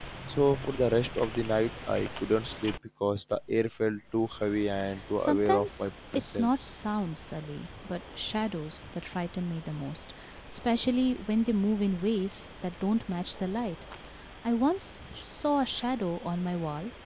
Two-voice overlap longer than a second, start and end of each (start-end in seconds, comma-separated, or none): 5.2-6.8